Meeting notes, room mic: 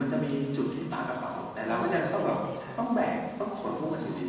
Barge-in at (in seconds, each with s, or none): 1.7 s